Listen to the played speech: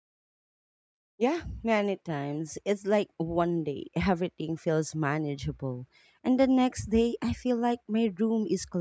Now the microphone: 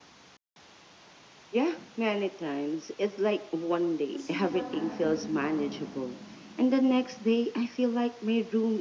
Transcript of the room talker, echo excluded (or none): to see what I've been ignoring.